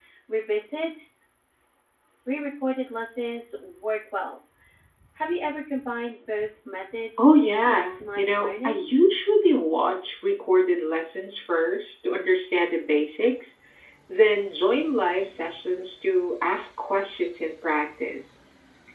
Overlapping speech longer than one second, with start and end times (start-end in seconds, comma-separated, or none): 7.2-8.9